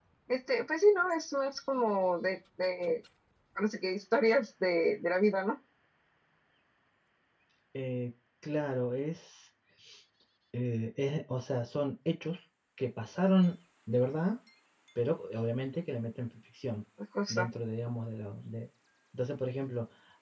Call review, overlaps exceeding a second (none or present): none